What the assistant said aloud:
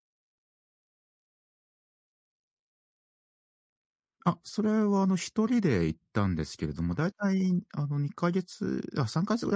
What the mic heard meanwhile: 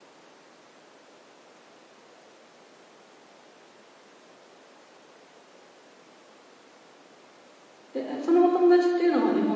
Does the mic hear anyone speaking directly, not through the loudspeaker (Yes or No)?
Yes